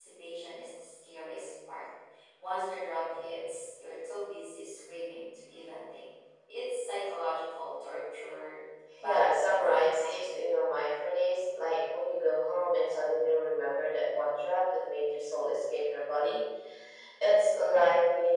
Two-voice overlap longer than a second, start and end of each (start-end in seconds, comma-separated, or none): 9.0-10.3